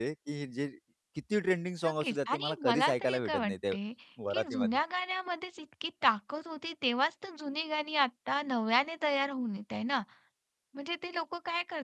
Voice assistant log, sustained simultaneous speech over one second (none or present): present